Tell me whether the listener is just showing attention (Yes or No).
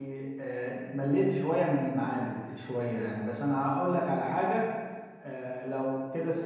Yes